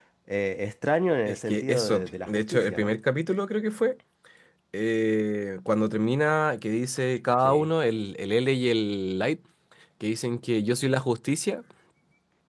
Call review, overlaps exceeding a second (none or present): present